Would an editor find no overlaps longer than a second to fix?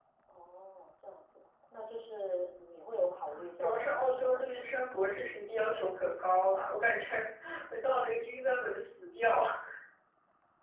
No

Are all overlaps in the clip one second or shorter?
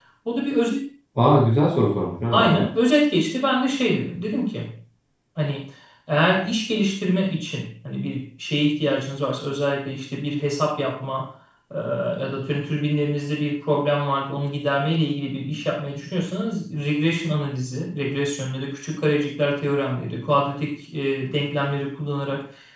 Yes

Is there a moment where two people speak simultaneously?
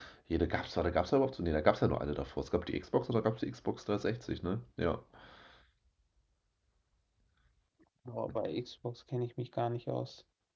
No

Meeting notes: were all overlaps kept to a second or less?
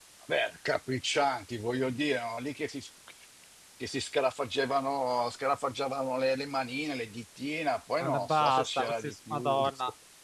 No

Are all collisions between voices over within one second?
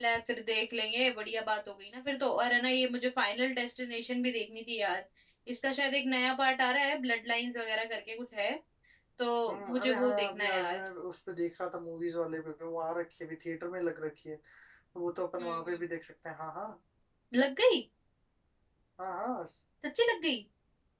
No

